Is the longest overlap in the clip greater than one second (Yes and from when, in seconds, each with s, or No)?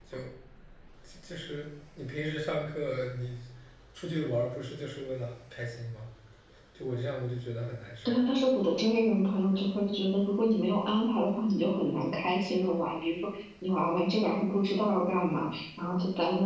No